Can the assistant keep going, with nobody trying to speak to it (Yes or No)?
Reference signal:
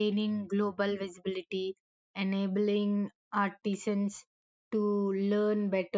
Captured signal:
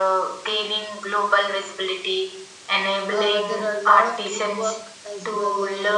No